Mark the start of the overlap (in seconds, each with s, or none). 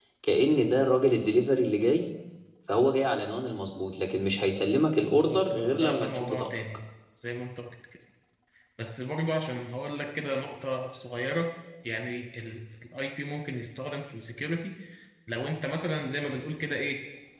5.1 s